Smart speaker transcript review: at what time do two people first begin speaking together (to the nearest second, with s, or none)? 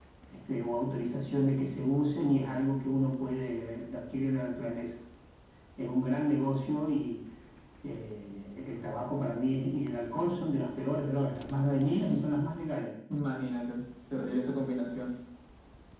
none